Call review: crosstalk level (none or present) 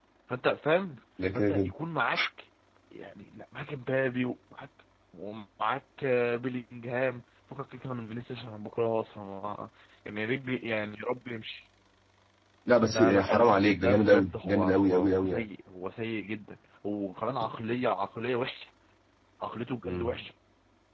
present